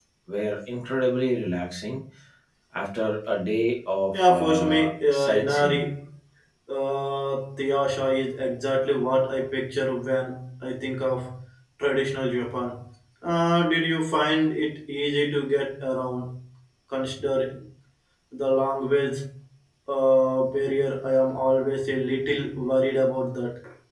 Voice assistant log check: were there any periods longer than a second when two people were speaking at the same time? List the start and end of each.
4.1-5.8

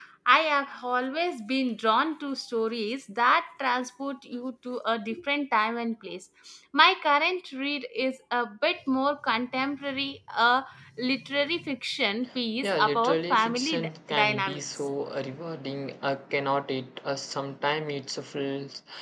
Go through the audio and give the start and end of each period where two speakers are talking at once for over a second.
12.6-14.6

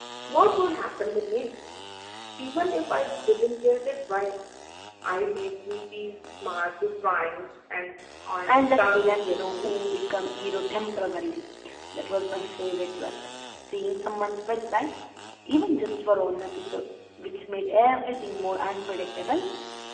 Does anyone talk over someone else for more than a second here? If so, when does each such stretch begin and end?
8.5-9.8

